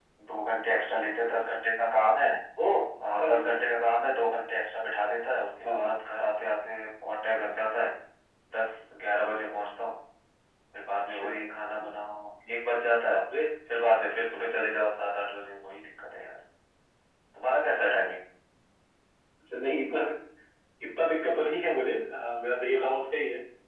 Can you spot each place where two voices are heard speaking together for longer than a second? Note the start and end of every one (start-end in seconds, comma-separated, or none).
none